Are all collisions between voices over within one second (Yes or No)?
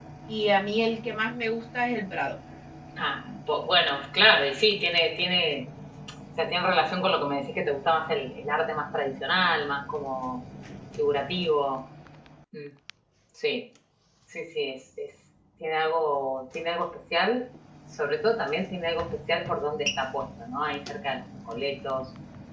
Yes